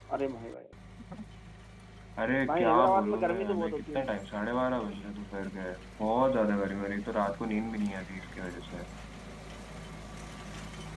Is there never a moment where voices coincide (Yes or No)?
No